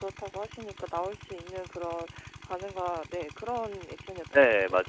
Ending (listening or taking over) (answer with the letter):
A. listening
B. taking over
B